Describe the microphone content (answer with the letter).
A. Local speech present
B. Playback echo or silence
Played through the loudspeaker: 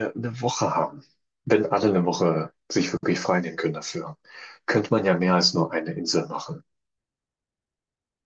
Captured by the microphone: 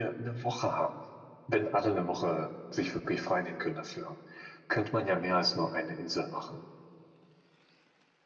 B